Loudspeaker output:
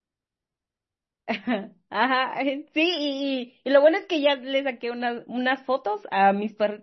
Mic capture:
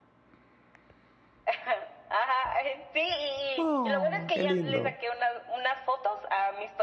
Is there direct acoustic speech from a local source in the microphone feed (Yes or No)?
Yes